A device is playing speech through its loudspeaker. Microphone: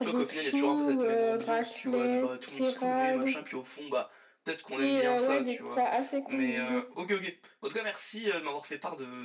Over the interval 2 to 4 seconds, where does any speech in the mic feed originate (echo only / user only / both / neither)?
both